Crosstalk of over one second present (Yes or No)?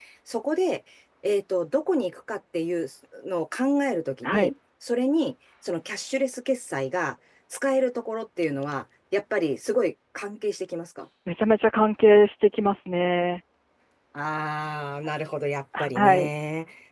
No